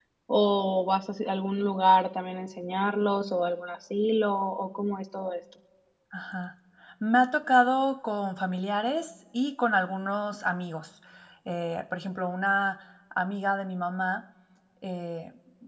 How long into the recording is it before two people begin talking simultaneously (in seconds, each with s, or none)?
none